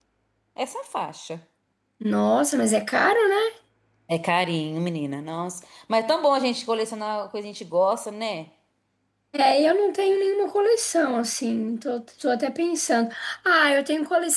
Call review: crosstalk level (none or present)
none